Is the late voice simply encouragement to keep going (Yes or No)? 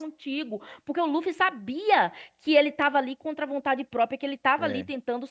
Yes